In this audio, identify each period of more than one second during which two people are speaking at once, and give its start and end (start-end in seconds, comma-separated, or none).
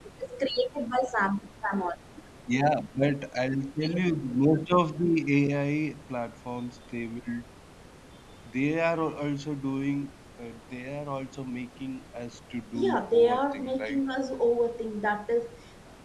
12.8-14.0